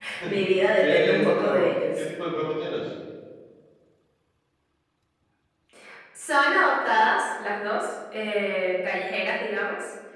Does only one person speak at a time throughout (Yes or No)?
No